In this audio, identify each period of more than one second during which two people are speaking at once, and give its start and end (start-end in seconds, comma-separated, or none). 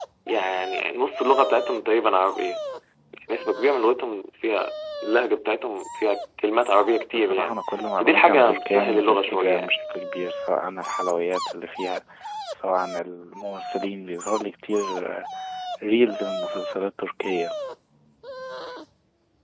8.0-9.7